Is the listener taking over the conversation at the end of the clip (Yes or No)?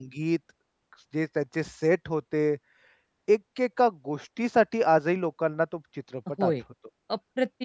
Yes